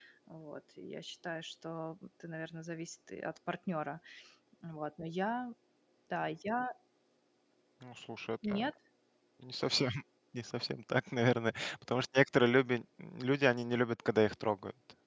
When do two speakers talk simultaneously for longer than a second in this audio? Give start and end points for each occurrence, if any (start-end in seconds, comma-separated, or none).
none